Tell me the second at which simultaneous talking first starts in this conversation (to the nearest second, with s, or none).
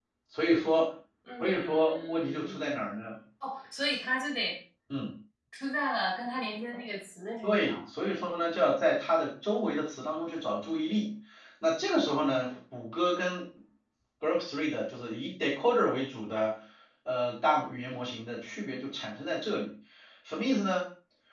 1 s